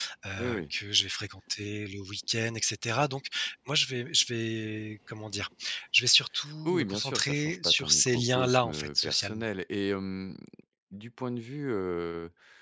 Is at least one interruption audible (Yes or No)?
Yes